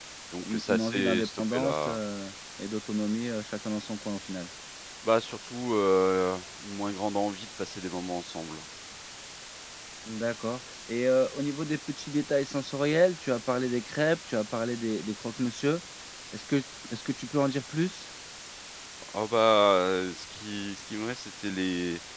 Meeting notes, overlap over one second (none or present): present